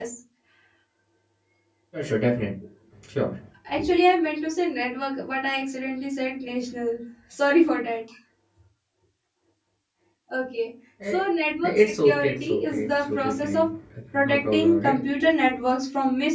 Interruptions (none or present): present